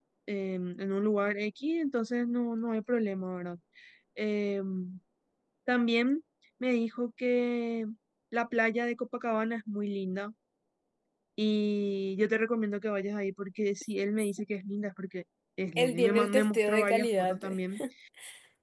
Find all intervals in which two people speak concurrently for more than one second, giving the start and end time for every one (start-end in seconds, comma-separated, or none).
15.8-17.4